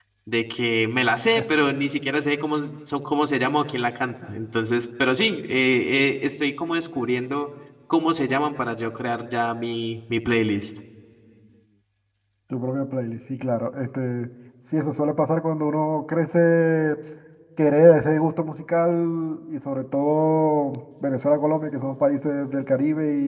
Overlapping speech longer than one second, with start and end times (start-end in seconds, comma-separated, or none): none